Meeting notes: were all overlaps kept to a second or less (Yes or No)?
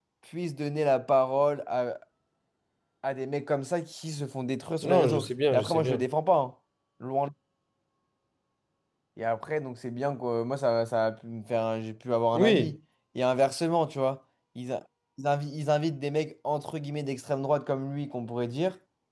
No